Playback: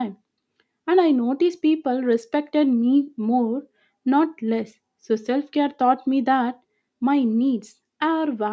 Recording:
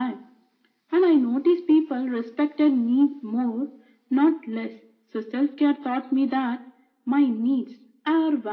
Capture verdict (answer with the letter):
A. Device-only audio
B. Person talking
A